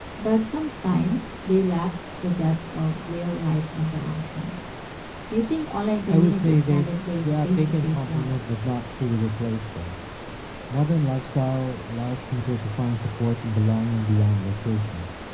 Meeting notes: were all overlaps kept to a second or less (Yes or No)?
No